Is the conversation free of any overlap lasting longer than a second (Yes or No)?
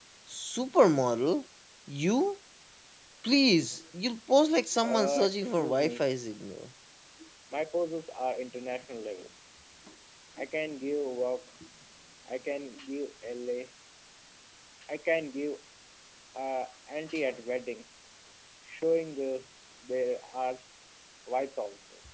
No